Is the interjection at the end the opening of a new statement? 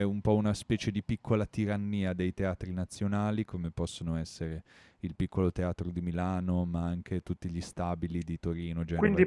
Yes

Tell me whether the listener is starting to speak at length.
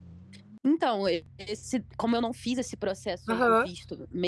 No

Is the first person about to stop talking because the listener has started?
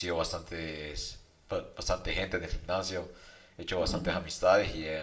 No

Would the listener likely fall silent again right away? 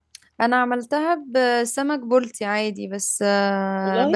Yes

